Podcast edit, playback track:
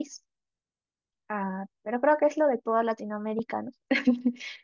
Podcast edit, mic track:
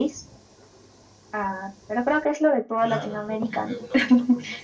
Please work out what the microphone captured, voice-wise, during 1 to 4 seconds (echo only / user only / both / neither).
both